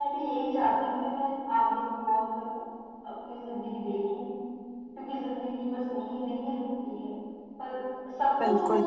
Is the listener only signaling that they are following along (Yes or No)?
No